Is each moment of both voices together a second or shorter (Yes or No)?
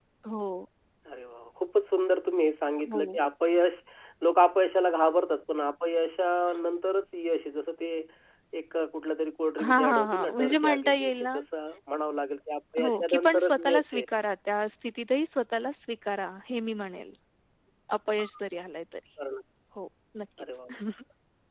No